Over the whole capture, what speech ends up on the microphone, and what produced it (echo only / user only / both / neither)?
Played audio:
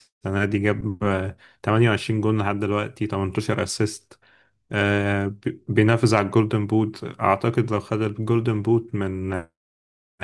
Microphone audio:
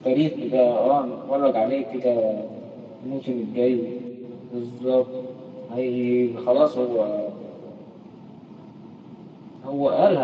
user only